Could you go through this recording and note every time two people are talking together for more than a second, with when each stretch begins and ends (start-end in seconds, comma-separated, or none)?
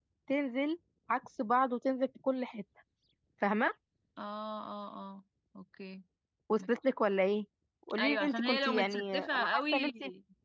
8.0-9.9